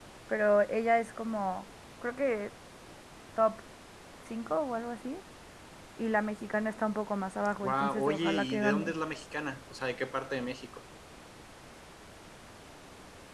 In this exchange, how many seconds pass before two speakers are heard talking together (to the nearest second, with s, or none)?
8 s